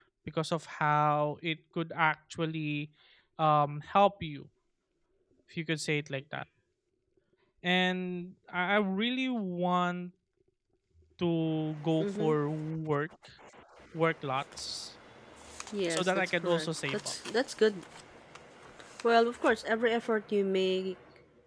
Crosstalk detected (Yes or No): Yes